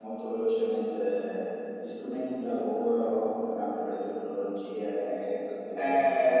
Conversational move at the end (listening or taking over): taking over